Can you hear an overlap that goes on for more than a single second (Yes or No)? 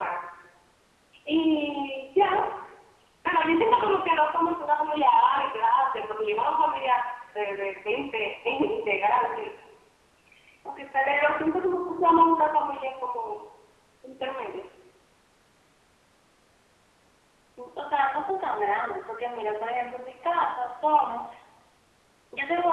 No